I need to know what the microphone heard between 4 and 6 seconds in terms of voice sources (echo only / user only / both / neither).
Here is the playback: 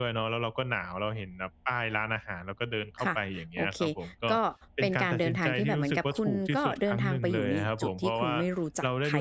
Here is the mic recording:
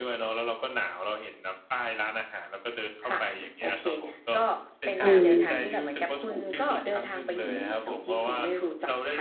both